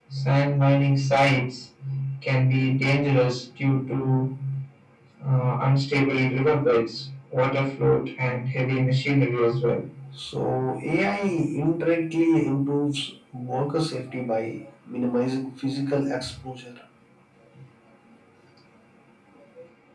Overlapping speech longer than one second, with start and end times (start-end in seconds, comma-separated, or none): none